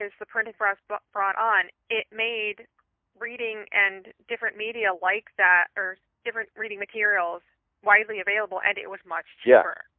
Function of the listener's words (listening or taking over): taking over